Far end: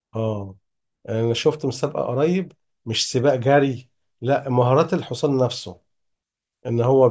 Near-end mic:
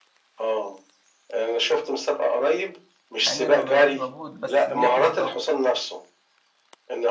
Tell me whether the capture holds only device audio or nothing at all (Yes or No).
No